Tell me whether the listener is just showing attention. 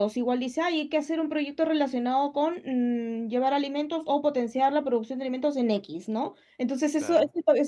Yes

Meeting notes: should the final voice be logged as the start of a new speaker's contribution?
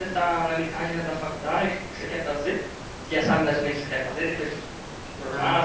Yes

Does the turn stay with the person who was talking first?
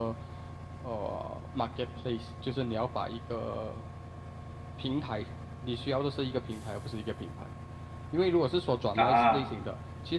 Yes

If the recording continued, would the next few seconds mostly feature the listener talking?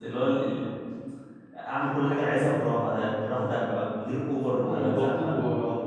Yes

